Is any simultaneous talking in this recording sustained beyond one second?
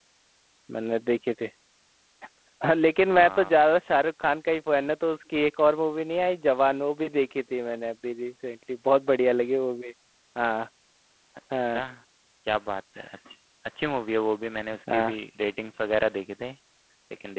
No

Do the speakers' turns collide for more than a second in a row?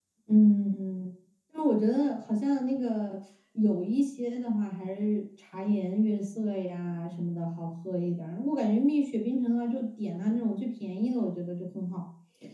No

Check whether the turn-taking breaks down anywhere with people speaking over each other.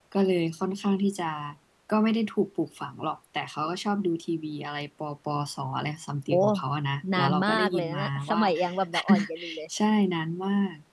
Yes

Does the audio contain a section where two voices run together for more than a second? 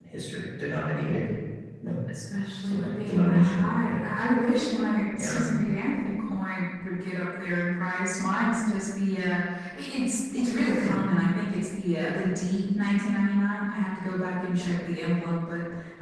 Yes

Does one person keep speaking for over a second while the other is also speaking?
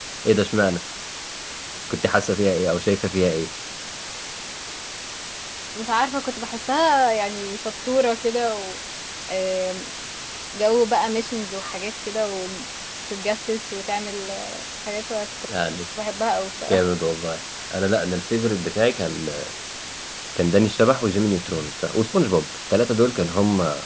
No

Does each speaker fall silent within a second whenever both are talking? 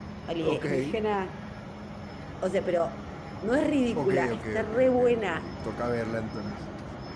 No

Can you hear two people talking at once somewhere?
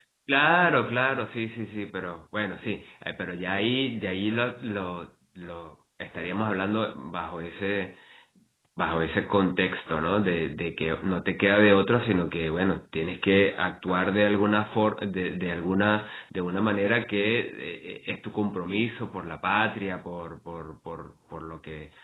No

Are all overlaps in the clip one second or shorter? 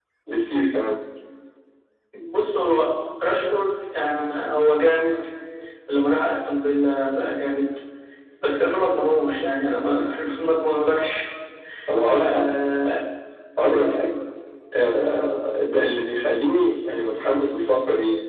Yes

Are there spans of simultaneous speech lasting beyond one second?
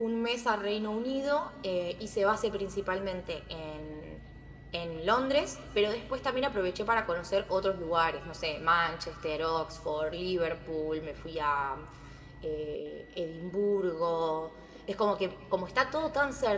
No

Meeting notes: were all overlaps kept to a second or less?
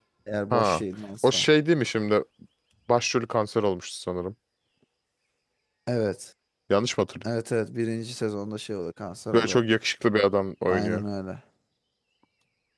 Yes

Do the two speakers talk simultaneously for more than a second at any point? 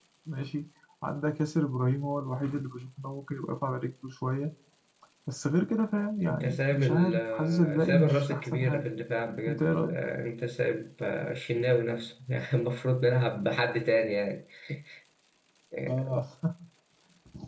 Yes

